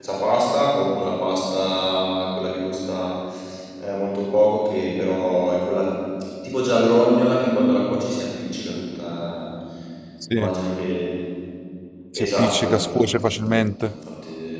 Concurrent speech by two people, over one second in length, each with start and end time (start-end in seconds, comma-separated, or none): 12.2-13.9